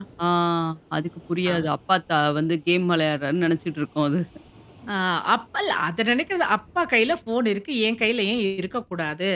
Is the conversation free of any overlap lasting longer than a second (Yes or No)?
Yes